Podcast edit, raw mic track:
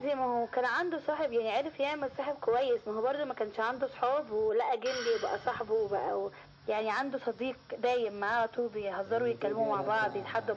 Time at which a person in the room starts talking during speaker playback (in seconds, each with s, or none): 9.0 s